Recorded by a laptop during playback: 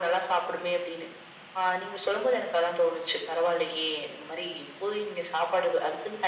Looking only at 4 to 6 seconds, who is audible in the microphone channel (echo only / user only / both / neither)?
echo only